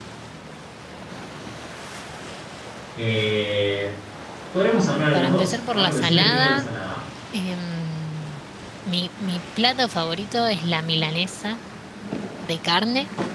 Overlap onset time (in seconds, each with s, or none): 5.1 s